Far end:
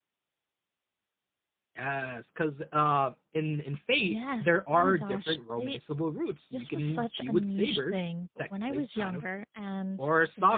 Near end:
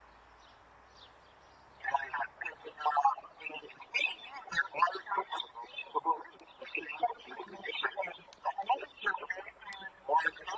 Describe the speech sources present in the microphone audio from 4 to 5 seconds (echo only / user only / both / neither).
echo only